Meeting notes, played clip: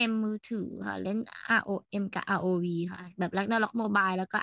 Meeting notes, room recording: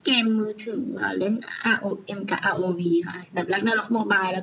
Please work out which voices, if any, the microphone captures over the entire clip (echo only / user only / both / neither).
echo only